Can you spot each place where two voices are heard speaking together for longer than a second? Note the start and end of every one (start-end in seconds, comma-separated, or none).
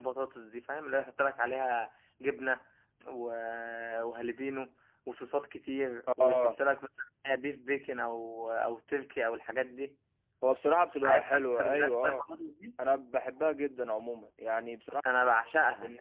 11.0-12.2